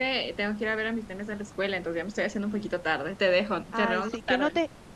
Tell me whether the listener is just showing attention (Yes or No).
No